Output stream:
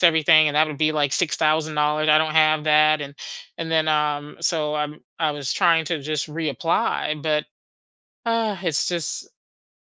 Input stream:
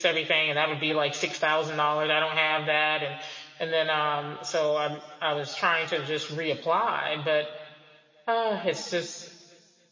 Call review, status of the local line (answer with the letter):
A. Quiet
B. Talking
A